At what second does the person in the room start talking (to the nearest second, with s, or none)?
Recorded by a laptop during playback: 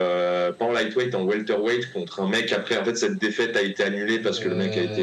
4 s